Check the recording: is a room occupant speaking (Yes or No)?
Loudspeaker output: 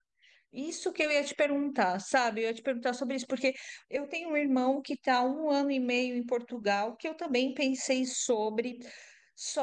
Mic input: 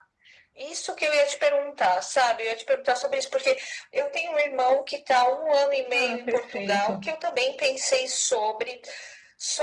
Yes